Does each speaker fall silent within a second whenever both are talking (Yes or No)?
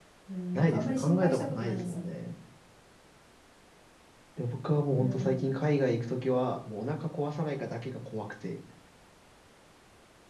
No